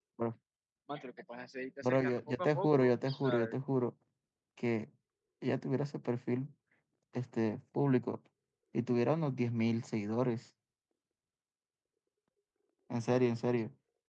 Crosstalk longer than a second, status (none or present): present